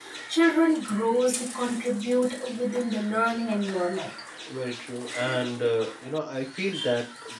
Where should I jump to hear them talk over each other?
none

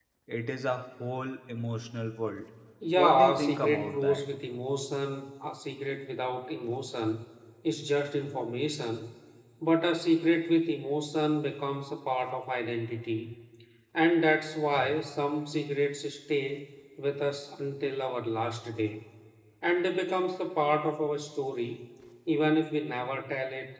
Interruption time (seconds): 3.0 s

